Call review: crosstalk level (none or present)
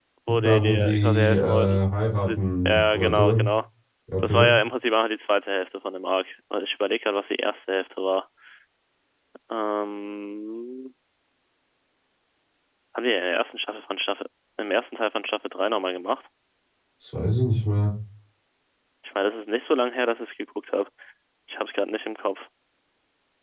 present